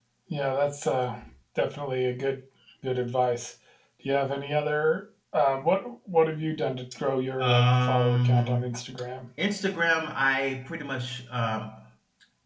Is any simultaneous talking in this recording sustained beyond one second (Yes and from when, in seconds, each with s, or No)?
Yes, from 7.4 s